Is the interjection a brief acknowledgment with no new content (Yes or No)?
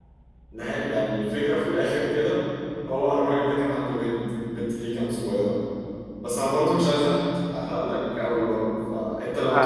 Yes